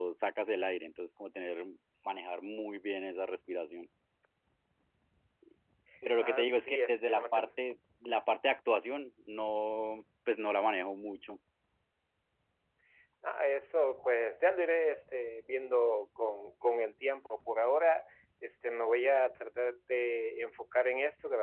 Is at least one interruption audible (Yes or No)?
Yes